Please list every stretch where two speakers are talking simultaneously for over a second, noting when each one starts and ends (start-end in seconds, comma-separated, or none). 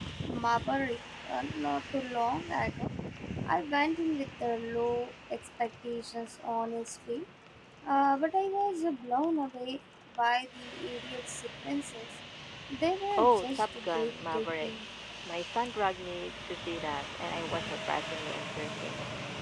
13.2-14.7